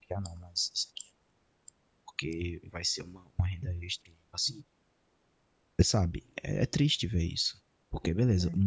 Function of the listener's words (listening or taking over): listening